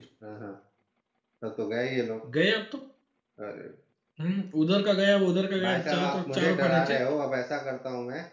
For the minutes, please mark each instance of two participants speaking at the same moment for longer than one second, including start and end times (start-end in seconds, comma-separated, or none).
5.6-7.0